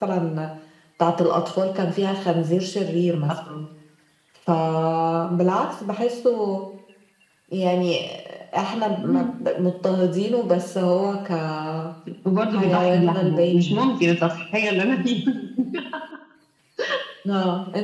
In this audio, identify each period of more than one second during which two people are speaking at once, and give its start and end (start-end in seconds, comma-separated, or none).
12.5-13.9